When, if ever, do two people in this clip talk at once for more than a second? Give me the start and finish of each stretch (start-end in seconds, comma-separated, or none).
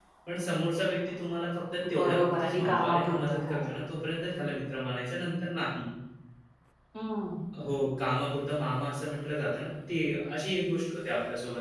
1.9-3.6